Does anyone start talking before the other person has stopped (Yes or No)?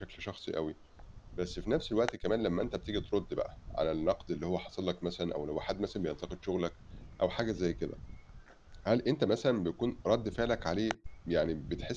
No